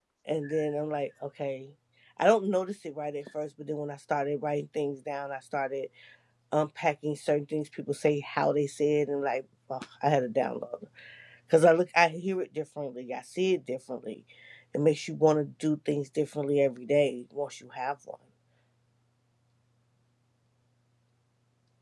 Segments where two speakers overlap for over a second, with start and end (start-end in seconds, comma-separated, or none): none